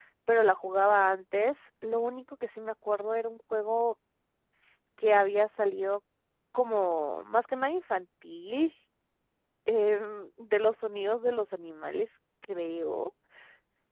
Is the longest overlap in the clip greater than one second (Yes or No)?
No